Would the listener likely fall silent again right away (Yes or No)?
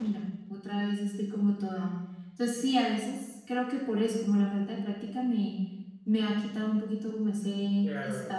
No